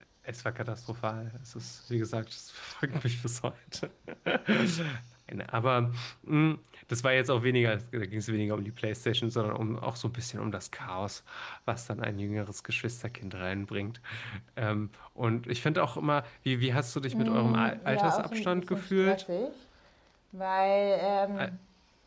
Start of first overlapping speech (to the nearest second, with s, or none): 17 s